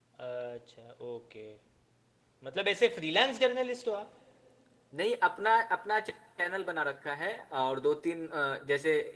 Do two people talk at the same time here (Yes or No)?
No